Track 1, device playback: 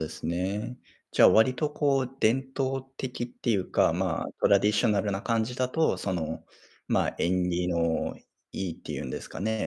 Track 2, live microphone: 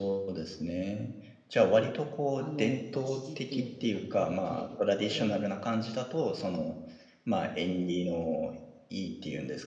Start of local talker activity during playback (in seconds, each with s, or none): 2.4 s